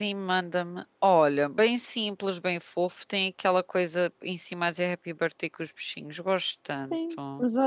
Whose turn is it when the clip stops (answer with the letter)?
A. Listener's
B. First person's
A